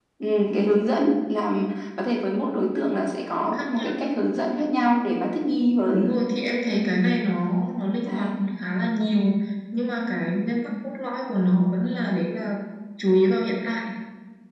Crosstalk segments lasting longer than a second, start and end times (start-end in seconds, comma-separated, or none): none